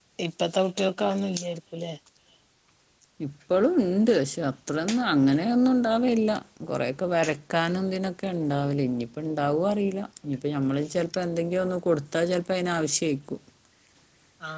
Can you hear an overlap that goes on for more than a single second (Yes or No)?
No